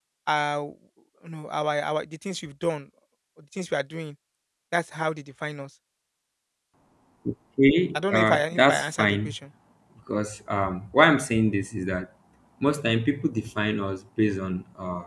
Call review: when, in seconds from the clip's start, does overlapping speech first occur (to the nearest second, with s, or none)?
8 s